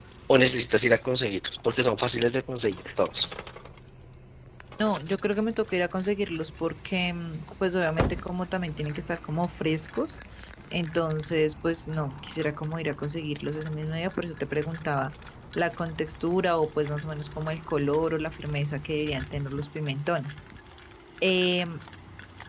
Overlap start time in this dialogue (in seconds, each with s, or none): none